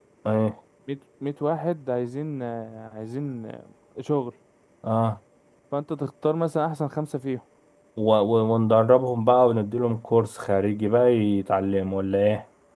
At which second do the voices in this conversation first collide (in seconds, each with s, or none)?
none